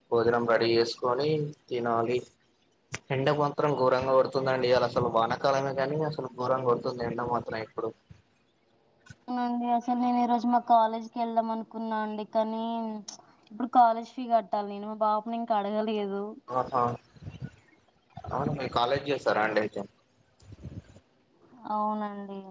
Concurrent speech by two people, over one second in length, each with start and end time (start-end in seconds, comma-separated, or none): none